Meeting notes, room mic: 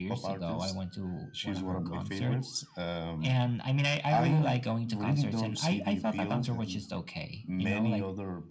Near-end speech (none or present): none